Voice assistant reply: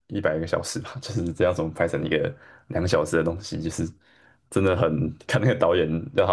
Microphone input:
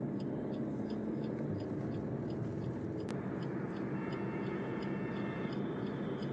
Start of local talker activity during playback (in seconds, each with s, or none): none